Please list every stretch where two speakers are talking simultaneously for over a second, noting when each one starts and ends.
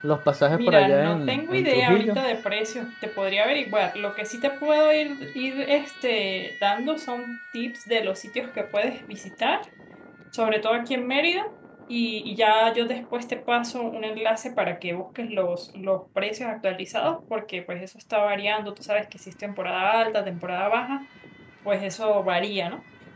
0.5-2.2

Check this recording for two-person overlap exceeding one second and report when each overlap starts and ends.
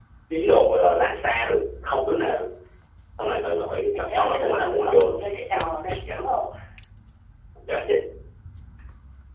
3.9-5.2

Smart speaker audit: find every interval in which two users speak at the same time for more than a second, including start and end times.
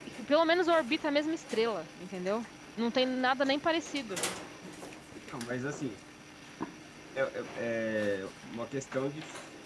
none

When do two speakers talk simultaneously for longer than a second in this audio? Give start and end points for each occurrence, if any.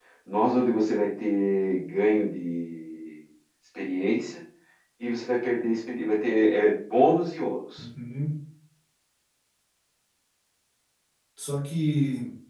none

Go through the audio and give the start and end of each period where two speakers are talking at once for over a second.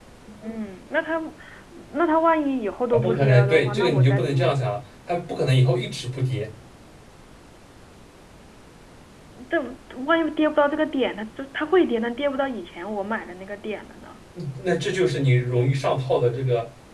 2.9-4.5

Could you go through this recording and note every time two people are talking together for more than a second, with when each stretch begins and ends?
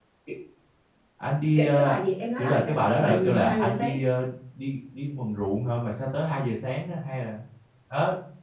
2.4-3.9

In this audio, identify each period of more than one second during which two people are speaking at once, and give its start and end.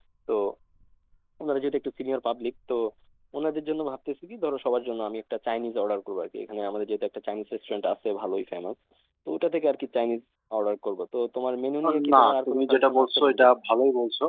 12.1-13.4

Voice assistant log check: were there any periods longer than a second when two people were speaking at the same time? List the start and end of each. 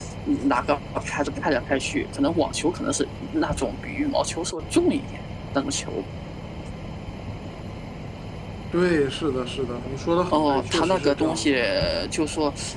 10.3-11.5

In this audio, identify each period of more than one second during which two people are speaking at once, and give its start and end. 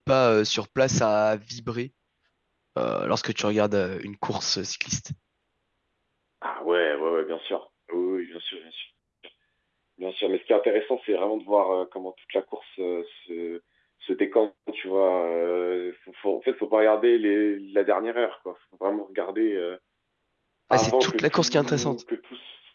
20.7-22.0

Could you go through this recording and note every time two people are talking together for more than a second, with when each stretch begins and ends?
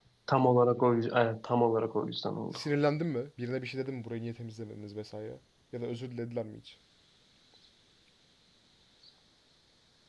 none

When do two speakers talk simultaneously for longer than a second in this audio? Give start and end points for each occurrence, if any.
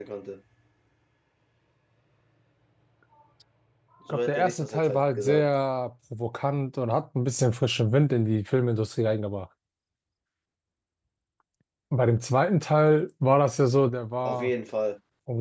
4.1-5.5

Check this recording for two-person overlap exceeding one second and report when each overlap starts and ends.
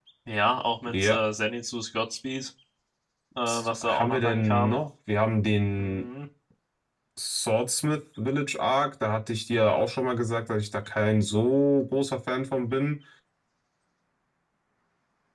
3.5-4.8

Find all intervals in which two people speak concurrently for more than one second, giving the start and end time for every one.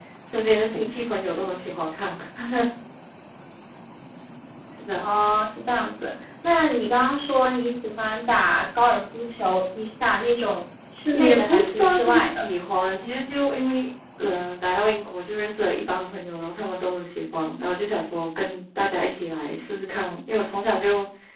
11.1-12.5

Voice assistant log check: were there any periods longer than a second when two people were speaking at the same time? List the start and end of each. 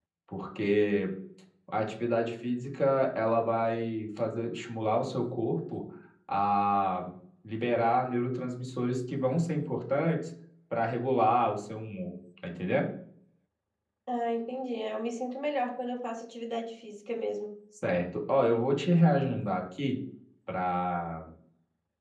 none

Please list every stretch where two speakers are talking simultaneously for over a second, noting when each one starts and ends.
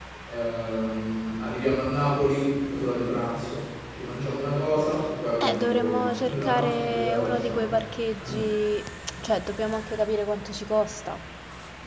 5.4-7.7

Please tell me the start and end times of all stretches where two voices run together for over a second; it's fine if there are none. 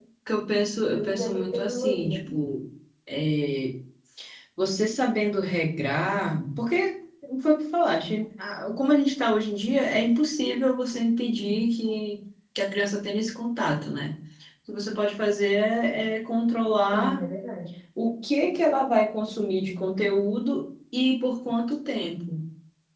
0.9-2.2

